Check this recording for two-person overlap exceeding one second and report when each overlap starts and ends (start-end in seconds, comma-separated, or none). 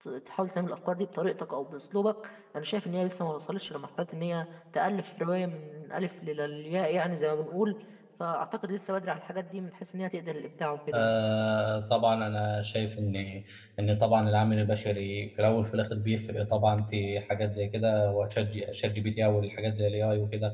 none